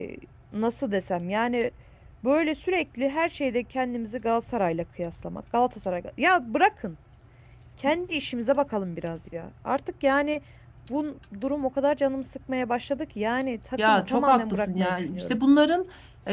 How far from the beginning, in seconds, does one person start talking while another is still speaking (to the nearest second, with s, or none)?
14 s